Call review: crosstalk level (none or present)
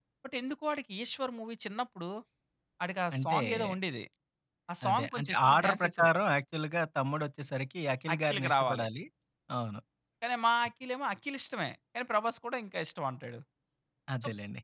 present